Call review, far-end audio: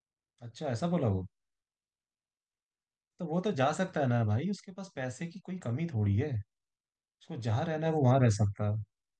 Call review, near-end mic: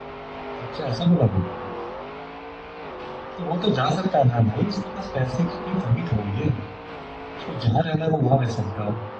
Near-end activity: none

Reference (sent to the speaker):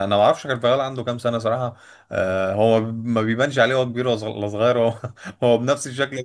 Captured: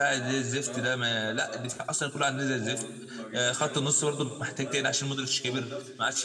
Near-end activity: present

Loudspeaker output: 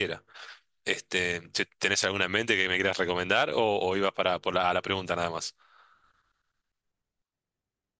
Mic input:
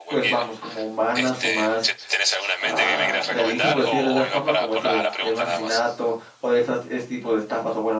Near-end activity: present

